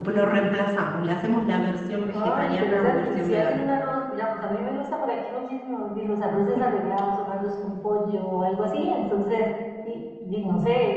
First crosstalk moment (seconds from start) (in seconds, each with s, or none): 2.1 s